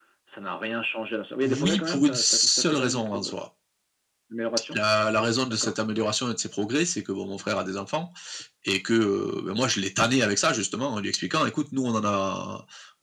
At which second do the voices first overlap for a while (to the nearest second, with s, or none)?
2 s